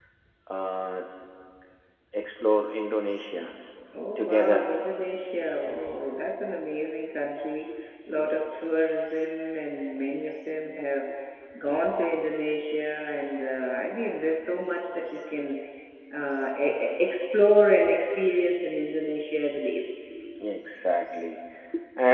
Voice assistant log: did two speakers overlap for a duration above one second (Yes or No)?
No